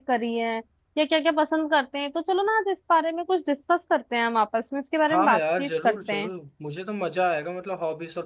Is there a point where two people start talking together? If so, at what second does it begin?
5.1 s

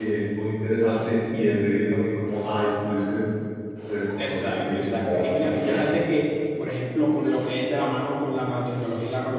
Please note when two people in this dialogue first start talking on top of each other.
4.3 s

